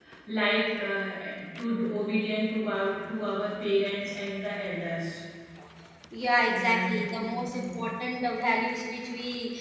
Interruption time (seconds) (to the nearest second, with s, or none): 6 s